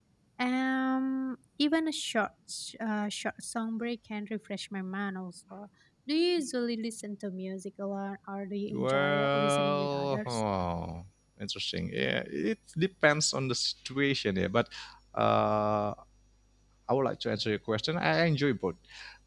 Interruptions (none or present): present